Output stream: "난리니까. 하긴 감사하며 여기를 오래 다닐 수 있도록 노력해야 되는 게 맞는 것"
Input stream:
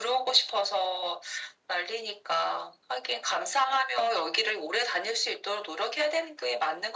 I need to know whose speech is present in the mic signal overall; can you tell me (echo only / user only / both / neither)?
echo only